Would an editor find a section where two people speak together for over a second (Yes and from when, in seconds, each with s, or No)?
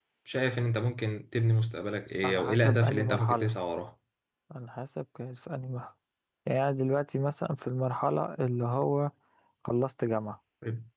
Yes, from 2.2 s